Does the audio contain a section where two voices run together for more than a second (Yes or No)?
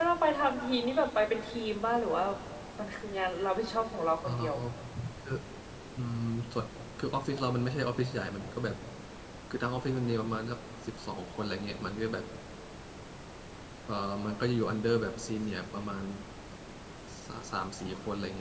No